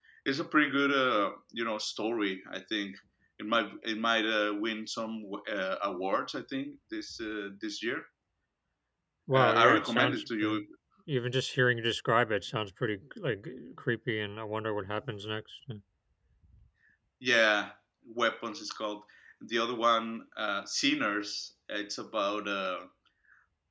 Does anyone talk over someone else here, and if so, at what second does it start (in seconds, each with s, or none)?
9.3 s